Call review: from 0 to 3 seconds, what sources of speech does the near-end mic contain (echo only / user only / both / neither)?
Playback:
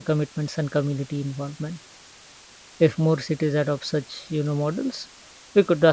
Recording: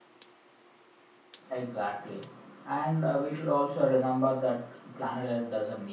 user only